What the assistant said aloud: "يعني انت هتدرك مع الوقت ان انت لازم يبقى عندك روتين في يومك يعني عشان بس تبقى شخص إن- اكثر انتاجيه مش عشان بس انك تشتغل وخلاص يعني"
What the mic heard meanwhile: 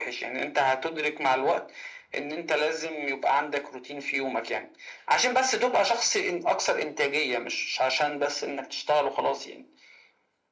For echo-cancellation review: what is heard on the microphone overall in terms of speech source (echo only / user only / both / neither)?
echo only